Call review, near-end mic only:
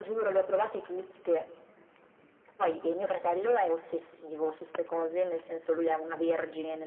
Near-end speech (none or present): none